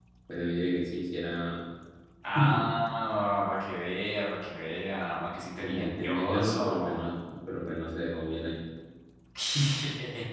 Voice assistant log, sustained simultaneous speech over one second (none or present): present